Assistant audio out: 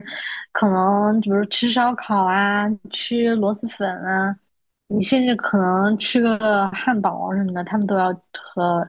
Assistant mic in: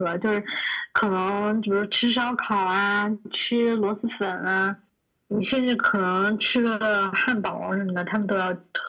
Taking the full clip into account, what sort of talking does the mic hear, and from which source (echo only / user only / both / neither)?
echo only